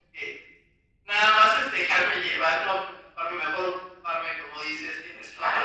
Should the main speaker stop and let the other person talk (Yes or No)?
Yes